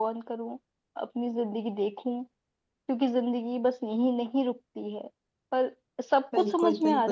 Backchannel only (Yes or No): No